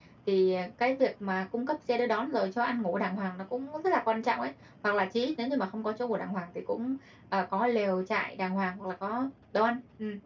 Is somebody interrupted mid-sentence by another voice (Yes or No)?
No